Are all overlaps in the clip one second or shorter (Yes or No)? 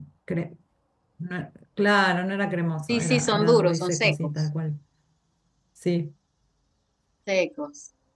No